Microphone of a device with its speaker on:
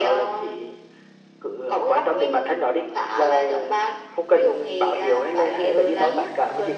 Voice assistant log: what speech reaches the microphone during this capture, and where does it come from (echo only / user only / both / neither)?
both